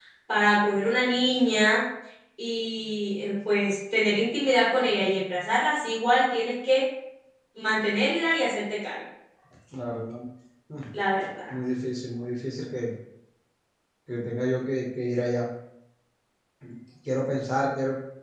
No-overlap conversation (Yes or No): Yes